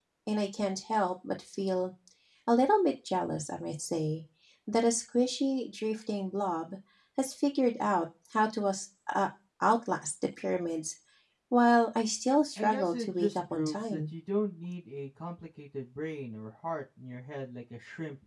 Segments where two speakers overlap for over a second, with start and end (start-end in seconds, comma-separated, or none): 12.6-14.0